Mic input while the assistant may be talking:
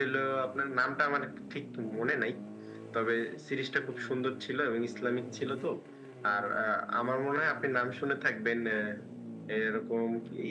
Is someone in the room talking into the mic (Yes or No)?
No